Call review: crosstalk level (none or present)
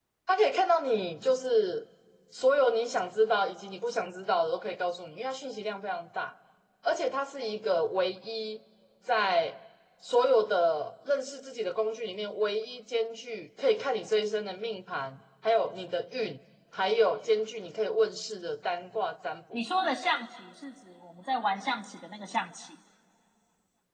none